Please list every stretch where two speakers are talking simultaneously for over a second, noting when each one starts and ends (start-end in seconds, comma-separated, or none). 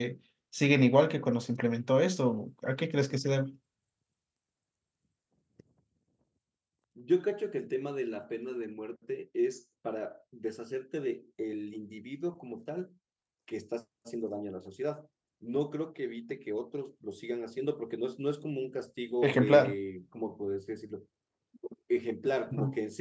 none